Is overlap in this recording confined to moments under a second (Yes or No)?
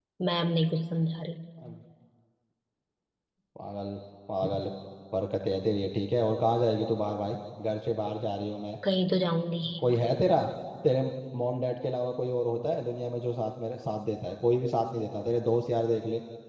Yes